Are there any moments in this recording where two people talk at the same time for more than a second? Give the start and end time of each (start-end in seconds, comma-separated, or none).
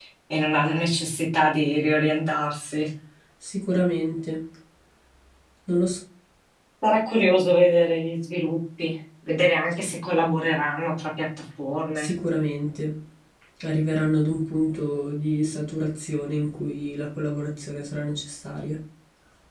none